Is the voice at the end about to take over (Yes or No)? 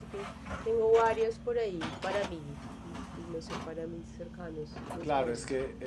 Yes